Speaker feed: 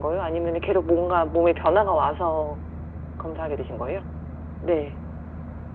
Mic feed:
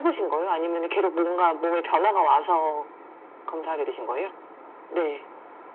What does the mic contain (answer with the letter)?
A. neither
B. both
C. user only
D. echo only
D